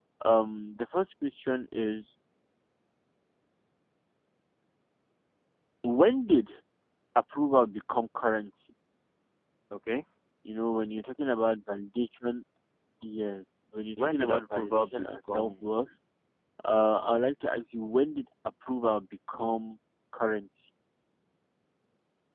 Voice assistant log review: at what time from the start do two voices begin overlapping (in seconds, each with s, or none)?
14.0 s